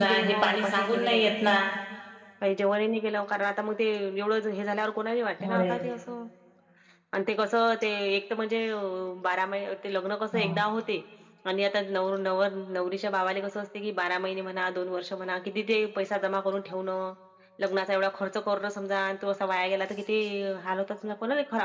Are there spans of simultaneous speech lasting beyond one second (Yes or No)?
Yes